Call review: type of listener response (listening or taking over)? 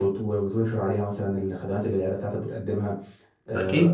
taking over